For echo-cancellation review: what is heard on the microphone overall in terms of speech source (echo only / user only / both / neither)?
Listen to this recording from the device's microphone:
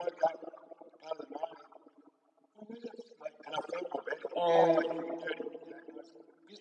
both